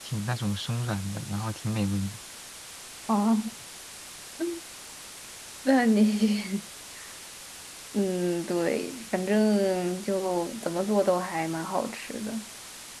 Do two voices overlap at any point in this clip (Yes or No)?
No